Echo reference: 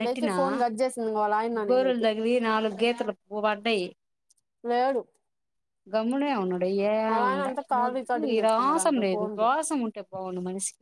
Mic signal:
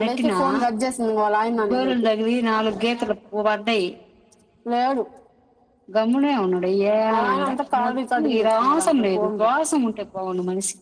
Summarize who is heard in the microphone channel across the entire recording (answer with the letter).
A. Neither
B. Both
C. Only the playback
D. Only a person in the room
C